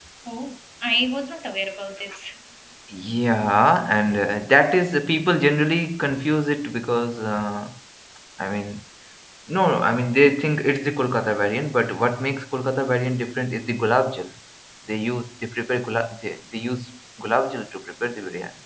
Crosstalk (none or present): none